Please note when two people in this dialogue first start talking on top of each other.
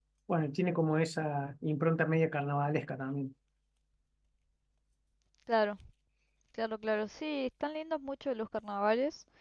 none

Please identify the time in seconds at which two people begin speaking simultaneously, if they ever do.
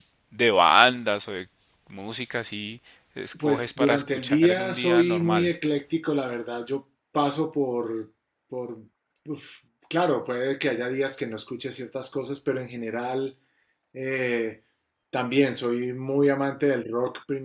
3.2 s

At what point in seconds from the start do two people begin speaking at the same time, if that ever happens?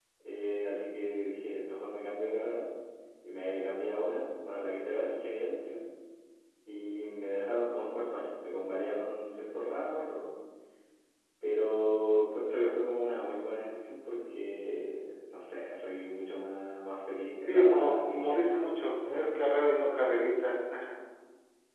17.5 s

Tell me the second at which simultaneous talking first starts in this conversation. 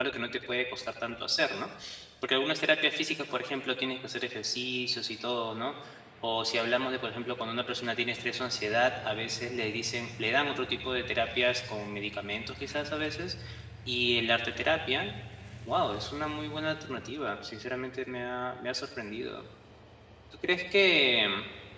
none

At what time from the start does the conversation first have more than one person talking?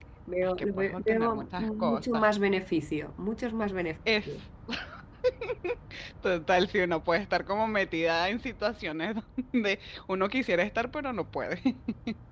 0.6 s

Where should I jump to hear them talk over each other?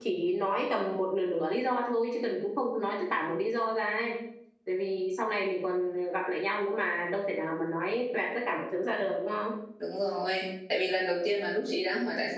none

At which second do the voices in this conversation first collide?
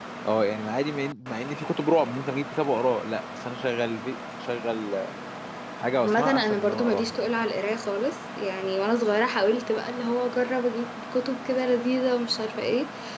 6.0 s

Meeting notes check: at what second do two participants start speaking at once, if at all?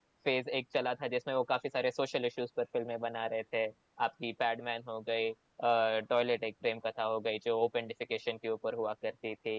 none

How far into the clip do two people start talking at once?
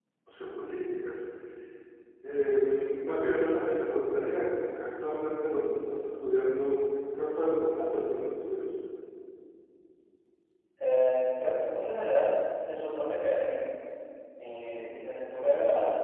none

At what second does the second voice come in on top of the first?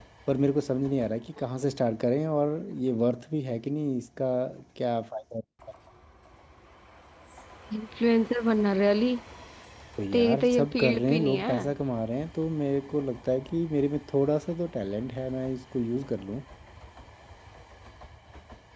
10.1 s

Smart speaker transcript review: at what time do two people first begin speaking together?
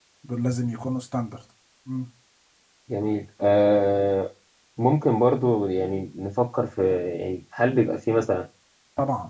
none

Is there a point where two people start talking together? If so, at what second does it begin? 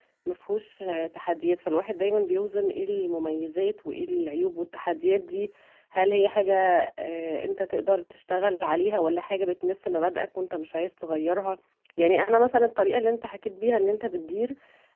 none

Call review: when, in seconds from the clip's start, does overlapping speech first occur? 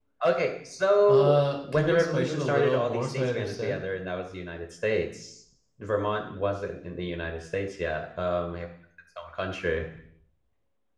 1.1 s

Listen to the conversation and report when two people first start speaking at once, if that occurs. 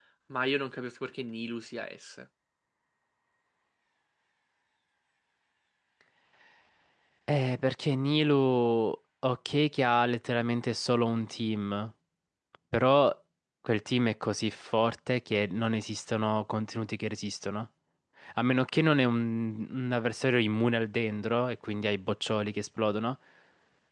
none

